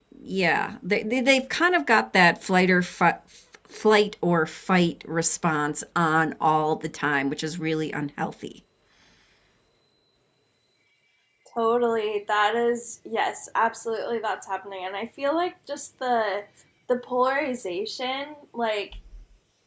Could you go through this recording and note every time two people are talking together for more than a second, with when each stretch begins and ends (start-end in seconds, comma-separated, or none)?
none